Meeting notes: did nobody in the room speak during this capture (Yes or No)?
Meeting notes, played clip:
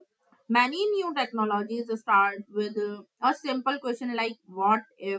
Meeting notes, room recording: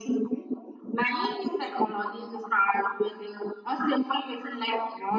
Yes